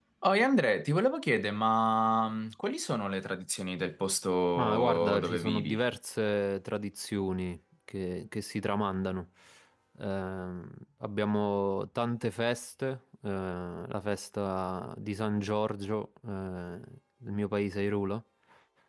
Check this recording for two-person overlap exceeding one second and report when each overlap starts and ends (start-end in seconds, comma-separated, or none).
4.6-5.8